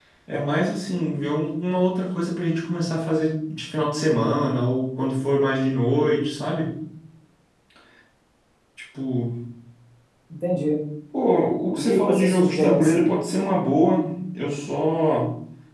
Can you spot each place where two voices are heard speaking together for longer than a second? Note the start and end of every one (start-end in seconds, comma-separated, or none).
11.8-13.1